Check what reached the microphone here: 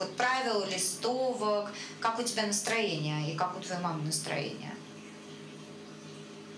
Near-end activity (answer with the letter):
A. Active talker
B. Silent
B